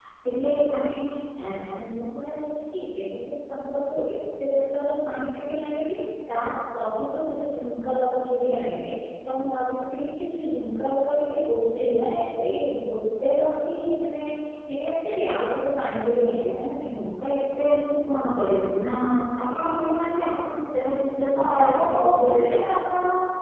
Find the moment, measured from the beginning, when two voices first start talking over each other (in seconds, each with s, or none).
21.3 s